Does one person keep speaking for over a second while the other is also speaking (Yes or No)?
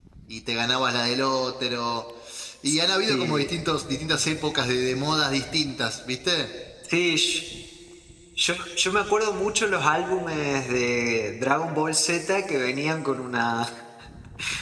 No